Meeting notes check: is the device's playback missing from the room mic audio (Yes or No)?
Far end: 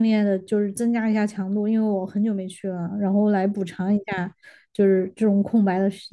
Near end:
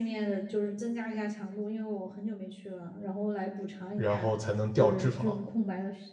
No